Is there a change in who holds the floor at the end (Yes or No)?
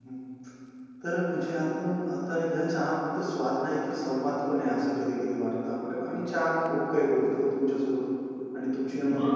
No